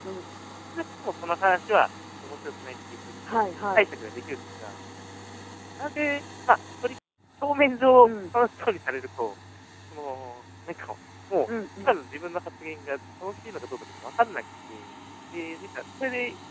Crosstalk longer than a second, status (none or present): none